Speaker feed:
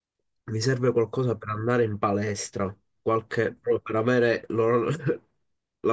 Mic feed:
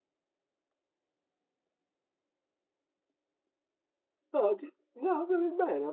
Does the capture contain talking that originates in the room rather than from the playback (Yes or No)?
Yes